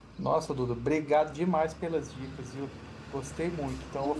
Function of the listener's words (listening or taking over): listening